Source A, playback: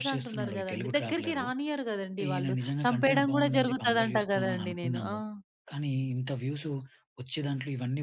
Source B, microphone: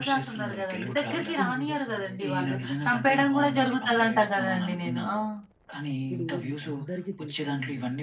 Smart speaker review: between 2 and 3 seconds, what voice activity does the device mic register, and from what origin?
both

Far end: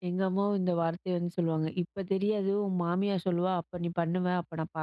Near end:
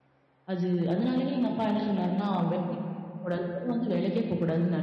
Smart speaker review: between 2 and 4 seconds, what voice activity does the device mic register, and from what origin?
user only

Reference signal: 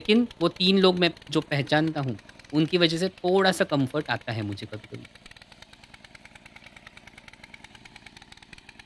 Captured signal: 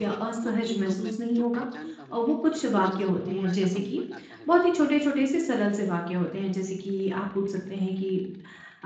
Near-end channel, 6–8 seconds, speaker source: user only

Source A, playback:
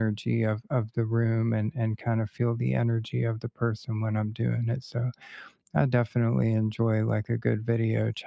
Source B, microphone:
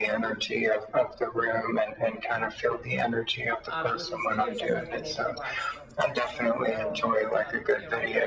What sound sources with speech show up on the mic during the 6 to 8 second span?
both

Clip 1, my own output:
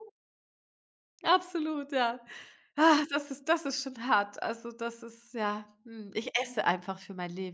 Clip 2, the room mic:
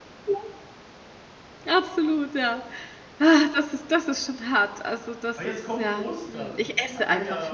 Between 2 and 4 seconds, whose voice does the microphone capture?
echo only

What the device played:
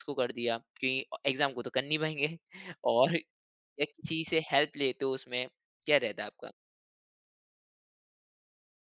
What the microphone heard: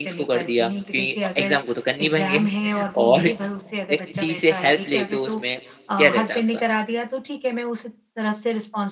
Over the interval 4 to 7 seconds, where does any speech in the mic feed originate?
both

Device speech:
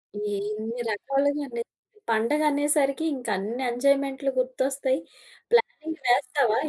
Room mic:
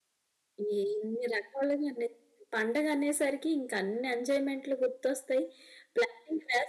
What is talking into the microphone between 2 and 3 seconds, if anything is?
echo only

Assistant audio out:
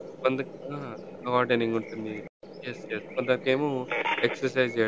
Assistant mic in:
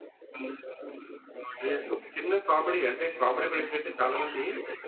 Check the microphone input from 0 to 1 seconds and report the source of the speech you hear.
echo only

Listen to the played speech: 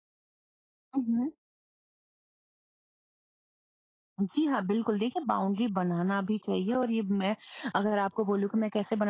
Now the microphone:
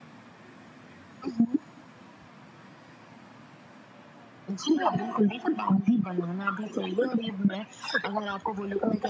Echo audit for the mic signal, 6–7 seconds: echo only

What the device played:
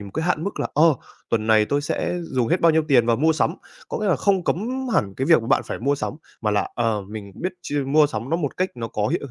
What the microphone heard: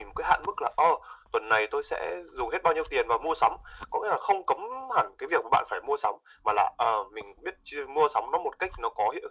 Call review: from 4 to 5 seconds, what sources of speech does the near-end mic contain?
echo only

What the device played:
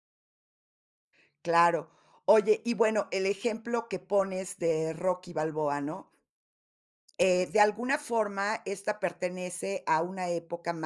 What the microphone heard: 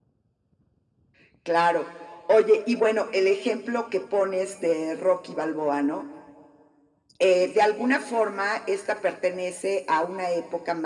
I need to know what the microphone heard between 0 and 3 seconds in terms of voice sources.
echo only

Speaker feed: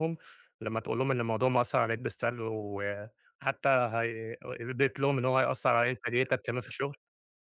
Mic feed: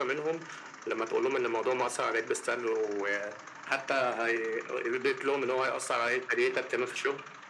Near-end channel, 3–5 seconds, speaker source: echo only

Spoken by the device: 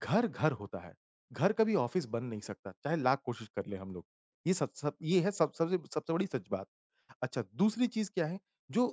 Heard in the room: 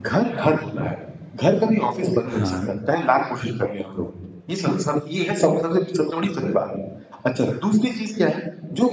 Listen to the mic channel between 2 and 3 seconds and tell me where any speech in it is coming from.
both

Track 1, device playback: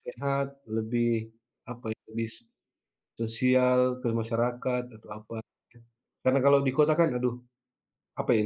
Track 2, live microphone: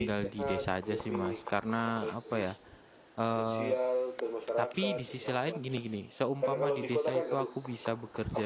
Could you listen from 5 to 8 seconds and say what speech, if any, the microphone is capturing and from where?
both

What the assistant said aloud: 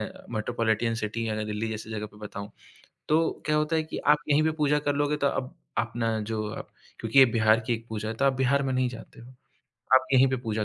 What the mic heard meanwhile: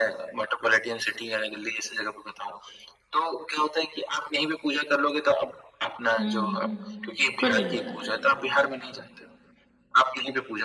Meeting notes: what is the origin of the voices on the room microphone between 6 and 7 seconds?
both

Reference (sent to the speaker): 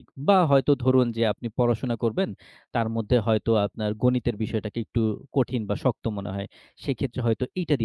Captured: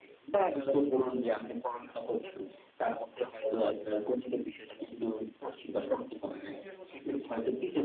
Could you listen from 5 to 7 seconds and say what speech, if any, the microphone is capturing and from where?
both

